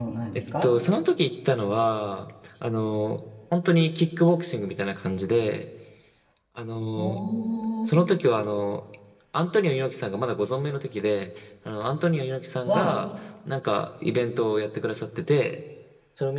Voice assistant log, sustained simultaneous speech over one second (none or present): none